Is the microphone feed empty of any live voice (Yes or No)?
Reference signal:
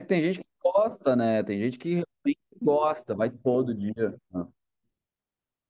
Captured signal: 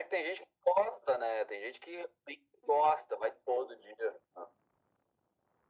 Yes